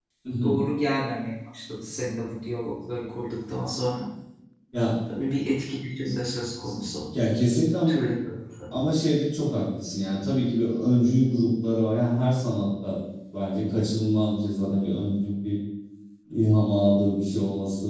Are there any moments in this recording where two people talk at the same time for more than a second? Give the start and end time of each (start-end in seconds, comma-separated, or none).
none